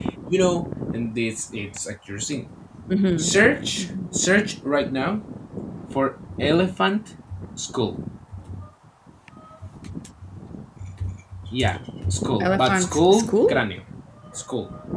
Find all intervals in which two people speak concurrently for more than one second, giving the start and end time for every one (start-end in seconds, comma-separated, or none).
12.4-13.6